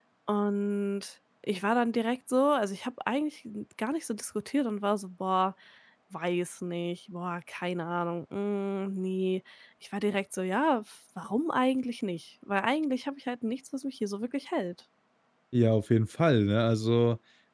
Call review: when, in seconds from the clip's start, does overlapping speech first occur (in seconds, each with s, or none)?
none